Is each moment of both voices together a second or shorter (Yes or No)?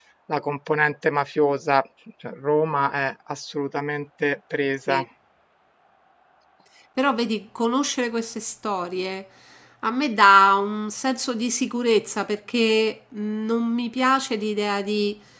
Yes